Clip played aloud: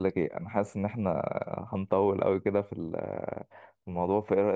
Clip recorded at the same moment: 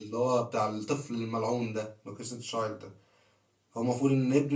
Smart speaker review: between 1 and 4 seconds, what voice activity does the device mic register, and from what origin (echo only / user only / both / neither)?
user only